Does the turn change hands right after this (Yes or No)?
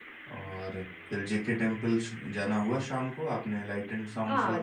Yes